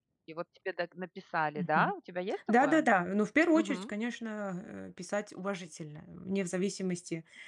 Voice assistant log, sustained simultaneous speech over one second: none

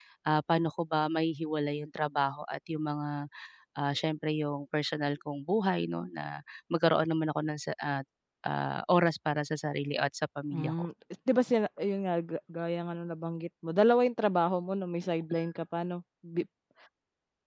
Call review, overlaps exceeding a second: none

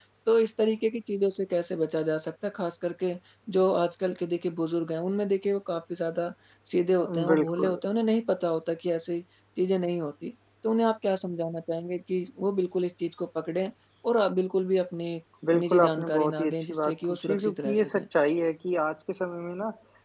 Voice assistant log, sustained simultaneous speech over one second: present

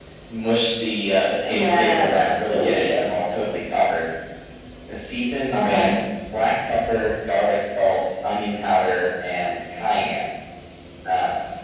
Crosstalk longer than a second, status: present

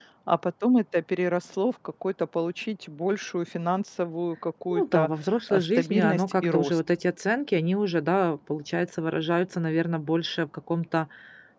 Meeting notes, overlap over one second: present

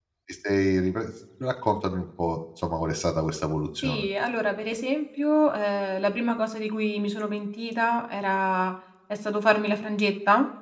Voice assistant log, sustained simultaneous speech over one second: none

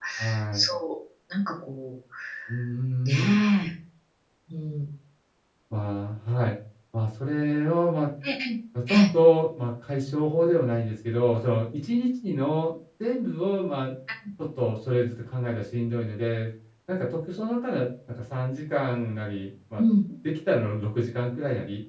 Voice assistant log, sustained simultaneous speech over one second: none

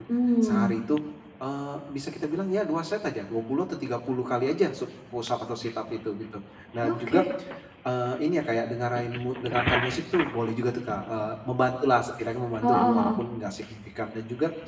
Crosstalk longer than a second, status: none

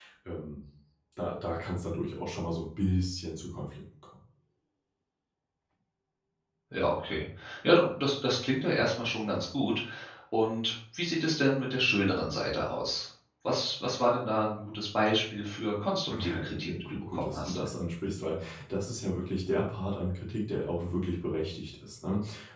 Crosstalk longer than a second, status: present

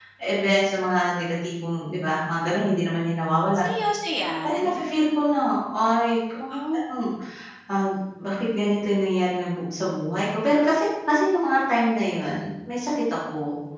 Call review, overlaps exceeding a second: none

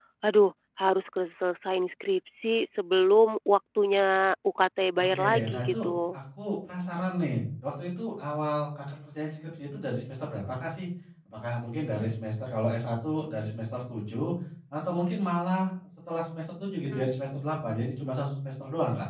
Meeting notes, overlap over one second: present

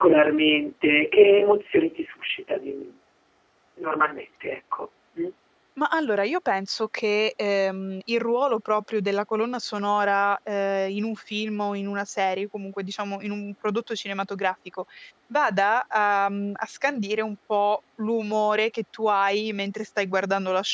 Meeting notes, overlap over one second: none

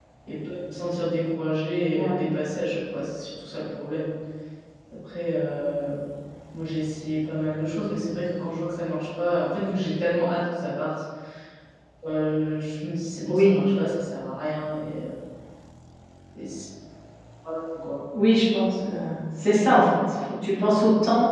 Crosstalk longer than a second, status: none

